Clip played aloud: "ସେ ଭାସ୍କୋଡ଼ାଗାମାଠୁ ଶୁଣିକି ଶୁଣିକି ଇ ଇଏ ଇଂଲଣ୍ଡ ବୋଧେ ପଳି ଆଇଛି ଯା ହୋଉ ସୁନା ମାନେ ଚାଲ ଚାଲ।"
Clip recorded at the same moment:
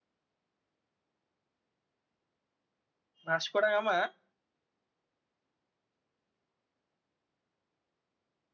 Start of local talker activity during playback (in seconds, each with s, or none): 3.3 s